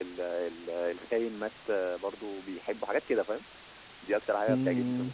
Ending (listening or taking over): taking over